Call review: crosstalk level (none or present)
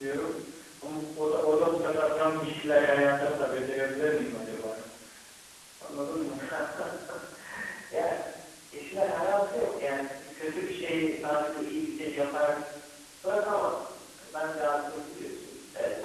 none